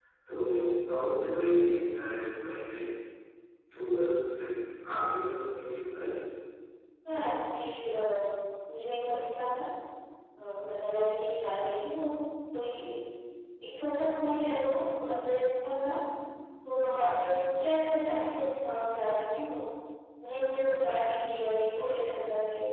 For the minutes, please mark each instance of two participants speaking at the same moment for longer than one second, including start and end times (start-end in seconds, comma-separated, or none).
none